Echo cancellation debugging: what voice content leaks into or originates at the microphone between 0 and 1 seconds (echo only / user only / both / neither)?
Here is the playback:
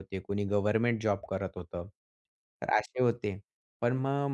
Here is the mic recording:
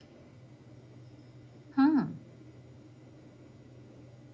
neither